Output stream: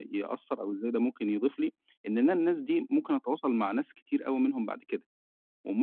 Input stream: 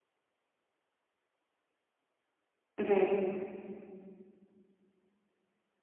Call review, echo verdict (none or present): none